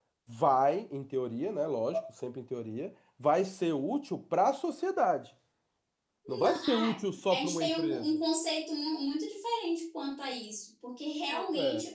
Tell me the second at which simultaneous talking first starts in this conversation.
6 s

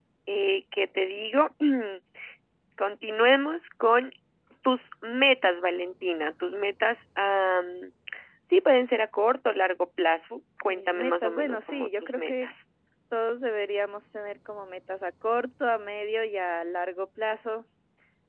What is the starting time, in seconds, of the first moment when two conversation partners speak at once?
11 s

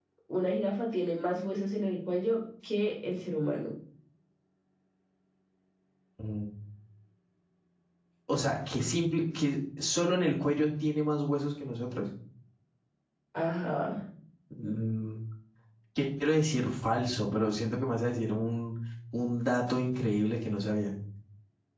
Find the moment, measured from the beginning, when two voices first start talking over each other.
none

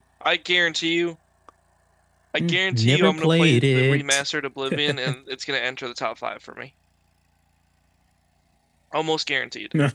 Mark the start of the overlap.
2 s

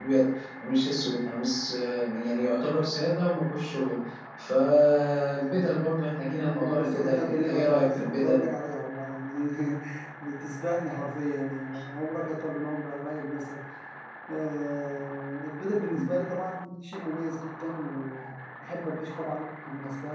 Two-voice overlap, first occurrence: 7 s

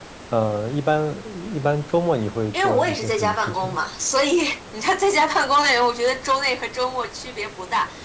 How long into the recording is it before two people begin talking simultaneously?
3 s

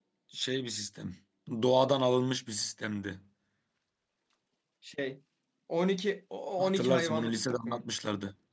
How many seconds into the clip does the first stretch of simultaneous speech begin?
7 s

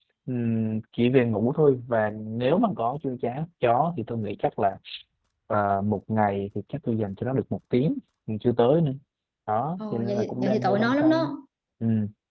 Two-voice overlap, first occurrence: 10 s

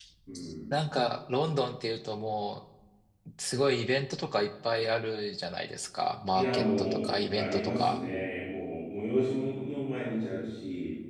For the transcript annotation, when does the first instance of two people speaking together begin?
6 s

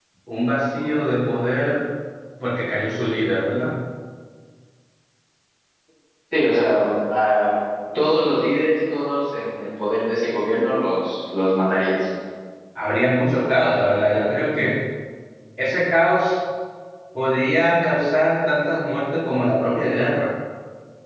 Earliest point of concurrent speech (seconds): none

